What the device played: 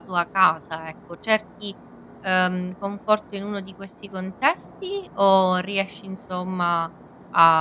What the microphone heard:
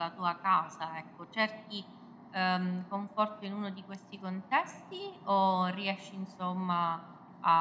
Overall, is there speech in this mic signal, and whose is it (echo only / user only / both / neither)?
echo only